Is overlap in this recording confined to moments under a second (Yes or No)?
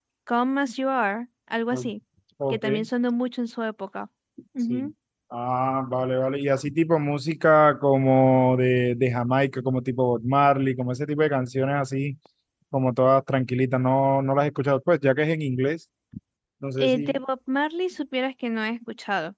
Yes